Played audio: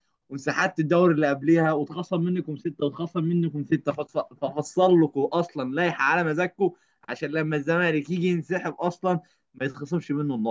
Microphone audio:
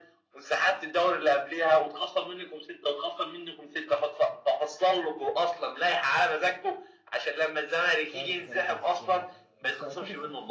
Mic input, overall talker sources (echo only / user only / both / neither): both